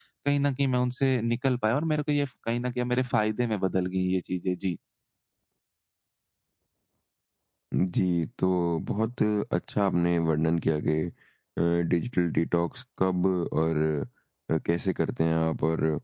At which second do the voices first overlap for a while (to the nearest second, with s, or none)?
none